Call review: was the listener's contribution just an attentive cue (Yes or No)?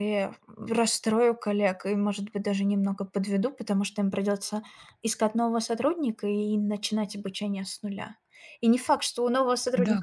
Yes